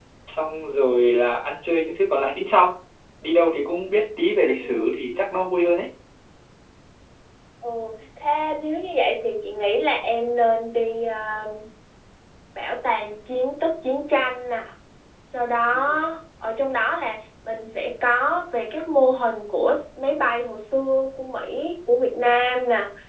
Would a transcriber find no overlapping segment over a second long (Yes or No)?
Yes